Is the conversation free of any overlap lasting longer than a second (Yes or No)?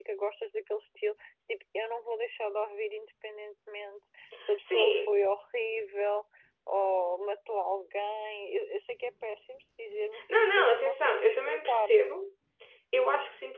No